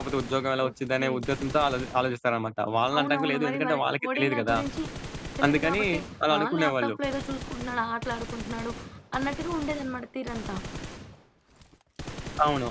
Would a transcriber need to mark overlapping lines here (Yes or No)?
Yes